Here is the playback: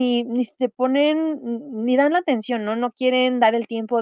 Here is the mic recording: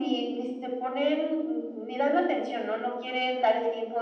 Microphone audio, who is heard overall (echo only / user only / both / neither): echo only